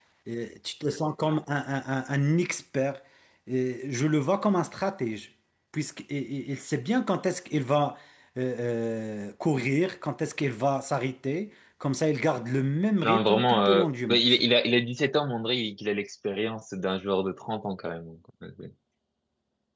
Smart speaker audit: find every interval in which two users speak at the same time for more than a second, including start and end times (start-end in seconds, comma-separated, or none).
13.0-14.2